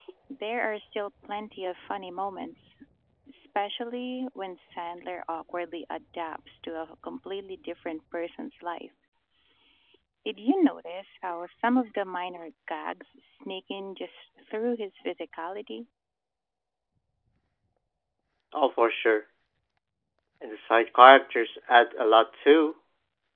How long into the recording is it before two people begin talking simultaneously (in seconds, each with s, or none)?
none